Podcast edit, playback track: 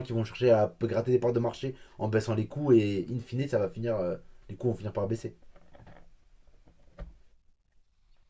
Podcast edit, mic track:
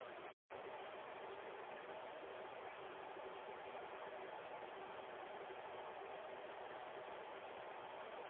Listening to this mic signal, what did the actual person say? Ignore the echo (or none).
none